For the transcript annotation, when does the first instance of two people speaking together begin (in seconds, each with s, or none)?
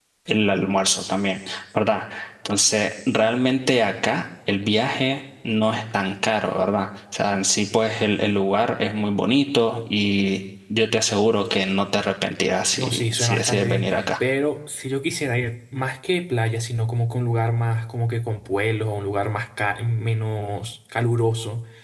12.8 s